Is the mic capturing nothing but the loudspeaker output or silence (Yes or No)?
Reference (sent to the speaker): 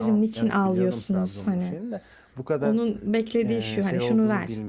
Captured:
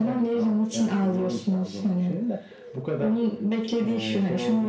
Yes